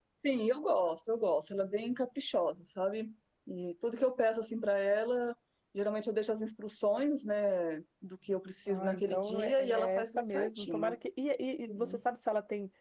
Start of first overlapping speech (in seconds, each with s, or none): 8.7 s